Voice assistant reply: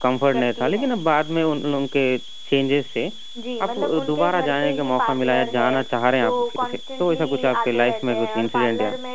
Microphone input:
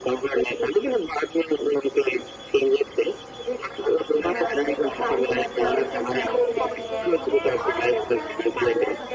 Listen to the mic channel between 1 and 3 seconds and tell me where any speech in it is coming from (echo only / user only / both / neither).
echo only